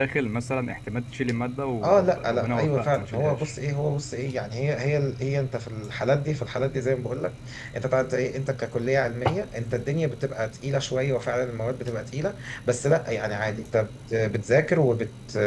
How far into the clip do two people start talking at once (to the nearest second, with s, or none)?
2 s